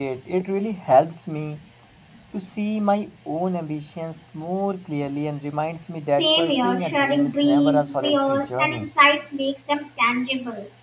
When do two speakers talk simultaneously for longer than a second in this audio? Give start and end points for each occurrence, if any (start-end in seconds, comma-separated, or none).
6.2-8.9